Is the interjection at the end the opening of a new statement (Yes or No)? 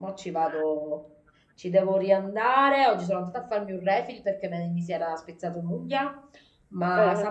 No